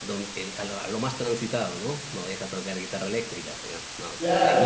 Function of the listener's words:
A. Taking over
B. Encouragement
A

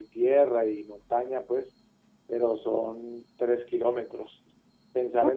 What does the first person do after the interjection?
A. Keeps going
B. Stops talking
B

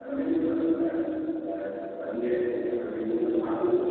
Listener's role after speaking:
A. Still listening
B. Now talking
B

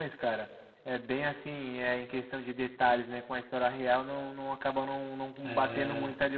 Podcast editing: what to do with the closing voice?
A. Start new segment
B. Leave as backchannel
B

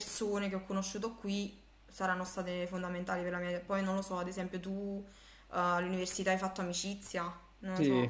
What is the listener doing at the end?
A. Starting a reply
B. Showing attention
A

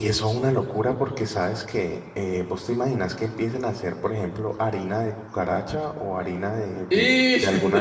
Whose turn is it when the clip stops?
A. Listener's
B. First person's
B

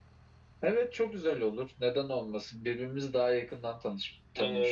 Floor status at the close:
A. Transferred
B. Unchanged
A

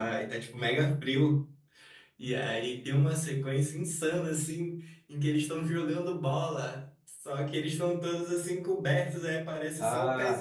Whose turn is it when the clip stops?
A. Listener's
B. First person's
B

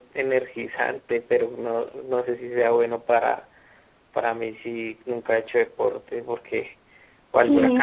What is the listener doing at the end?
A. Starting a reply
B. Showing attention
A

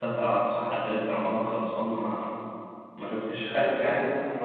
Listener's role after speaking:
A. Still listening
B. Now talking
B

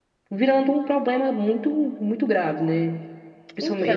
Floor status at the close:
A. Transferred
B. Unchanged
B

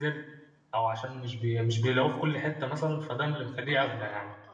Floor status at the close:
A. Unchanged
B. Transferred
B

